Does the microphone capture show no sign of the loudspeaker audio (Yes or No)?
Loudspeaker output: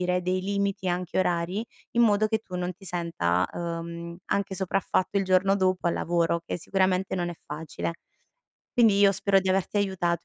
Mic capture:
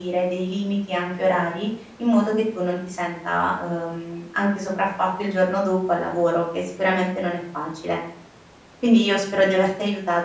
No